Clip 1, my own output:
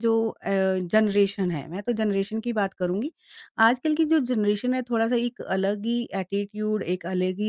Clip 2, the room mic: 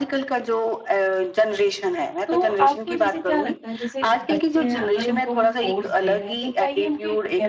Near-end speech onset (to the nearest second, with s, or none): 2 s